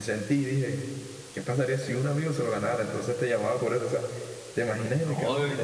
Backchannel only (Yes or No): Yes